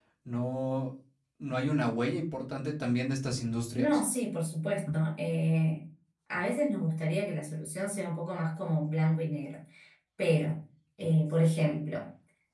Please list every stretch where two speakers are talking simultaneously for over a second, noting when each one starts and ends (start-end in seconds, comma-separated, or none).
none